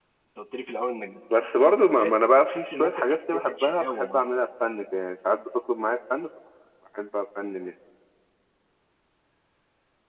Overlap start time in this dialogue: 1.3 s

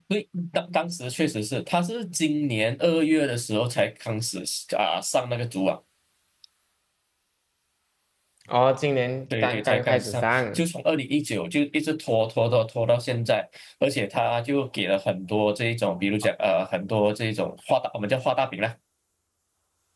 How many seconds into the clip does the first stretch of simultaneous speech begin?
9.3 s

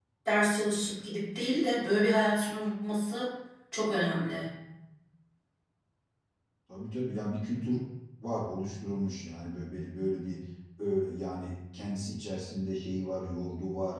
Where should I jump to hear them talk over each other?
none

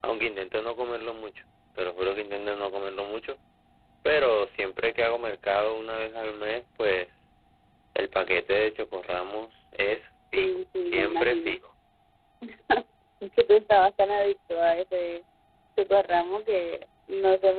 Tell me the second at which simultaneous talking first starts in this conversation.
10.4 s

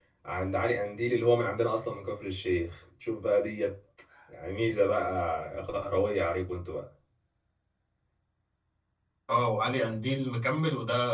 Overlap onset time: none

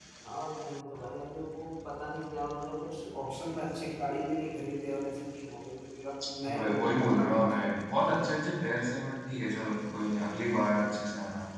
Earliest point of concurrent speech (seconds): 6.5 s

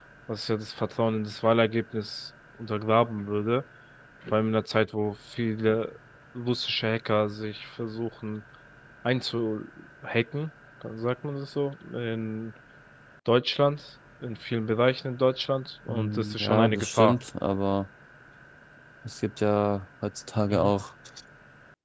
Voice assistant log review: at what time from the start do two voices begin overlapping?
15.9 s

